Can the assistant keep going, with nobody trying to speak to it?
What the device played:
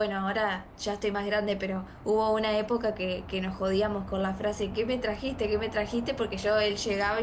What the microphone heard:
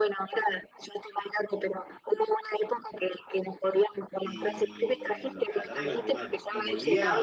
No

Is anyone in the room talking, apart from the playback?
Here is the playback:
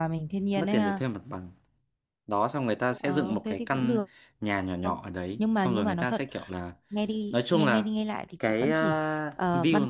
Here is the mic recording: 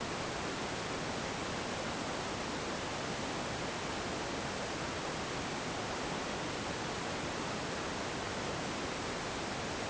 No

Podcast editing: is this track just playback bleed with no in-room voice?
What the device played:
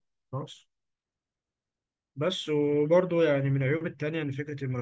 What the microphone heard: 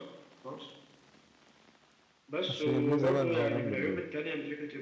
No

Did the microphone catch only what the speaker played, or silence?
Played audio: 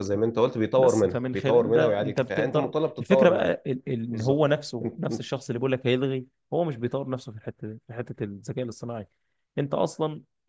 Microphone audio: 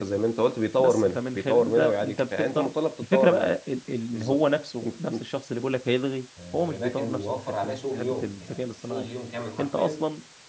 No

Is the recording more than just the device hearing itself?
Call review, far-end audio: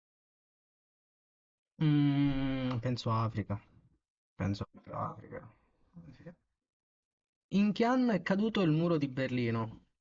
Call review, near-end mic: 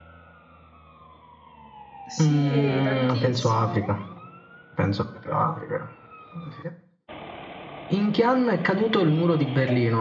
Yes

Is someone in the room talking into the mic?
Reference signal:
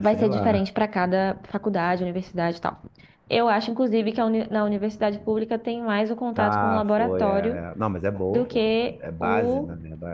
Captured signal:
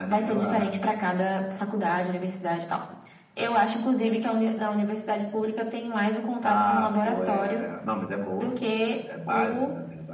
No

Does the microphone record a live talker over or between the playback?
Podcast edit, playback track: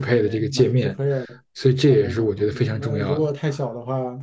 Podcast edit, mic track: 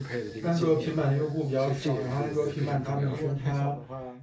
Yes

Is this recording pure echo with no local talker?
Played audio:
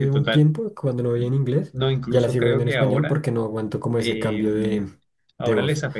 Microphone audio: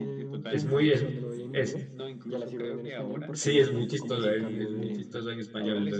No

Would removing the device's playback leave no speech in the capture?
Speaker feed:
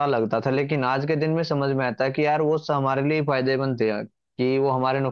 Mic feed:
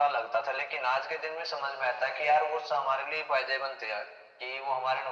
Yes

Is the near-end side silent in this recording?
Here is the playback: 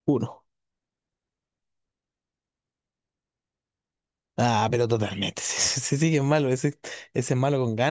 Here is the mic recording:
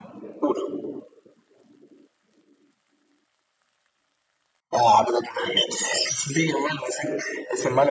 Yes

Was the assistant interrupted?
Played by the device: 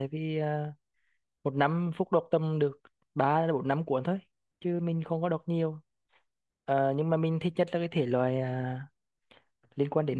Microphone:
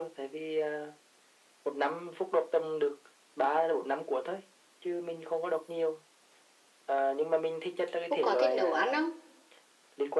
Yes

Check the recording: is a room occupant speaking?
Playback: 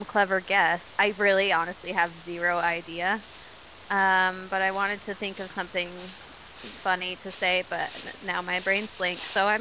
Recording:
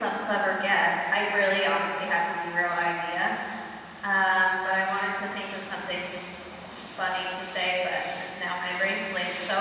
No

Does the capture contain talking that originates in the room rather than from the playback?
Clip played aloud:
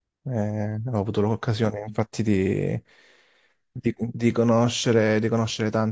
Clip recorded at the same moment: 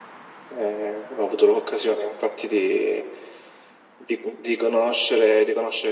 No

